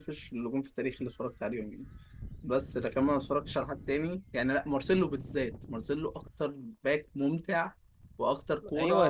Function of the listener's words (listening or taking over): taking over